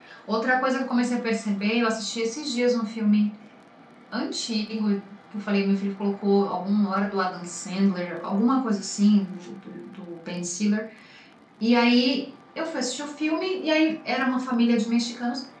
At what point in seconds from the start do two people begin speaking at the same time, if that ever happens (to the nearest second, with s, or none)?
none